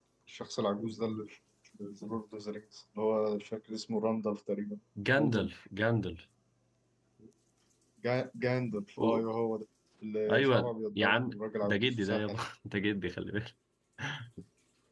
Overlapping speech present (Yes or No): Yes